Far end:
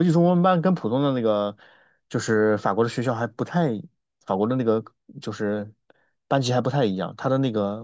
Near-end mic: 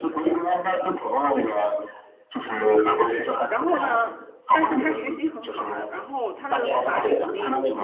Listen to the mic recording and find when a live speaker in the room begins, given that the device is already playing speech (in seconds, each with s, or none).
3.5 s